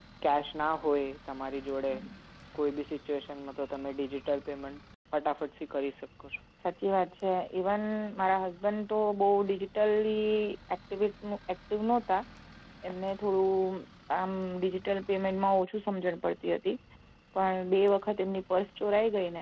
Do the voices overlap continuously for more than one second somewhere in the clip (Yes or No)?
No